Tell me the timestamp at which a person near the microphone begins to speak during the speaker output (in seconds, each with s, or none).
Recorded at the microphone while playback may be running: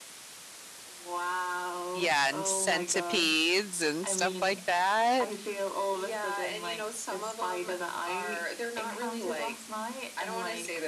1.9 s